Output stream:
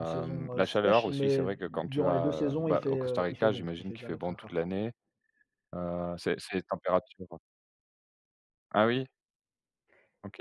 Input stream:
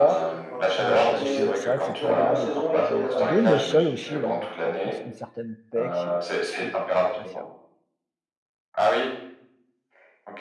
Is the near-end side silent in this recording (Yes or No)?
No